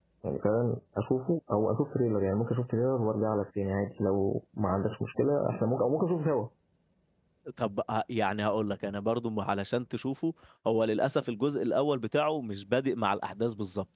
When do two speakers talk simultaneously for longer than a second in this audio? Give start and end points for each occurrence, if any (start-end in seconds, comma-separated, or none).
none